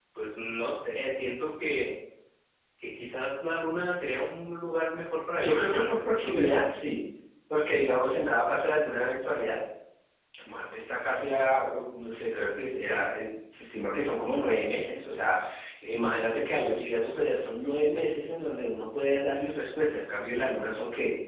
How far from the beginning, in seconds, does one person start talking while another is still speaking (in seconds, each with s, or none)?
5.4 s